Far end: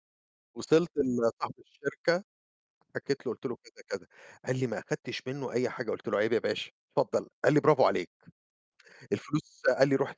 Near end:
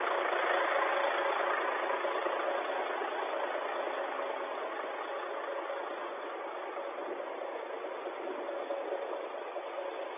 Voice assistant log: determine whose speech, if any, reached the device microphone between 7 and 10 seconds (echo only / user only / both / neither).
neither